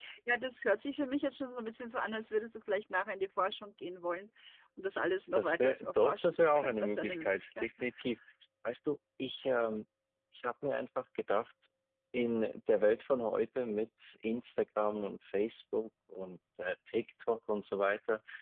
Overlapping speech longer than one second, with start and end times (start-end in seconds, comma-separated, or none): 5.3-7.7